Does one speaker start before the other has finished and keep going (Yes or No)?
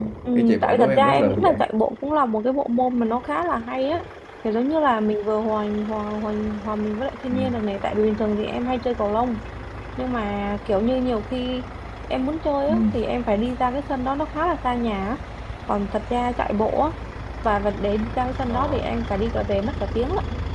Yes